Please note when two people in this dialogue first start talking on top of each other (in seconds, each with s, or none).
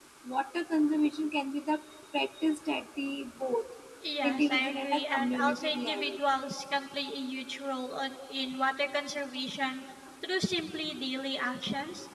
4.2 s